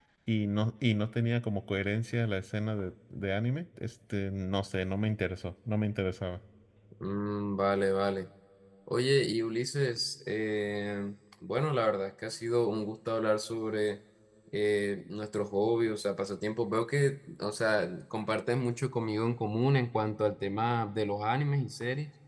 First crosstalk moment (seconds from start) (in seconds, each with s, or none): none